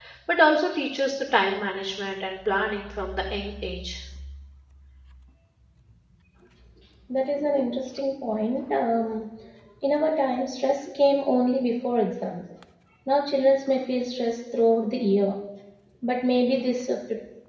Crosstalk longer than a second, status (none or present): none